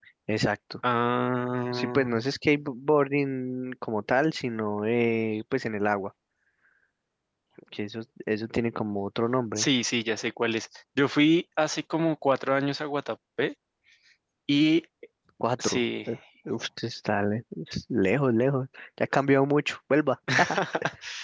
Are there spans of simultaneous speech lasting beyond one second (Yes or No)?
No